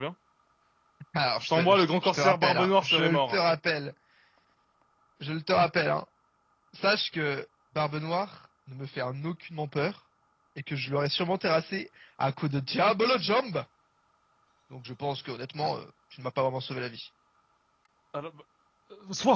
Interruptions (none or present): present